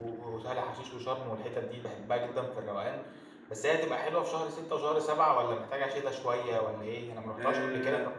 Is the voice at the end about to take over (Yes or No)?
Yes